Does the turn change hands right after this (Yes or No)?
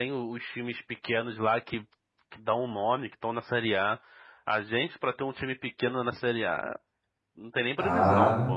Yes